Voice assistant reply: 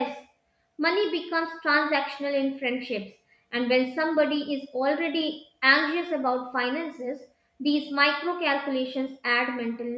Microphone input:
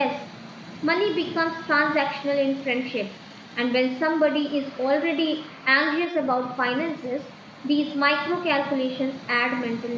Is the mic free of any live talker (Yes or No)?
Yes